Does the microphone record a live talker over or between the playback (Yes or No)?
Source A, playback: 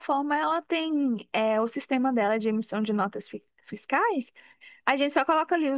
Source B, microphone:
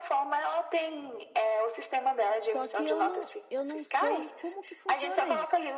Yes